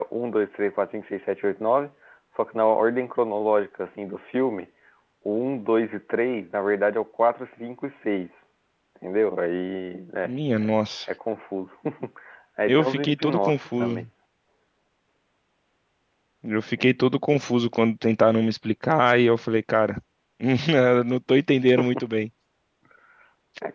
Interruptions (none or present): present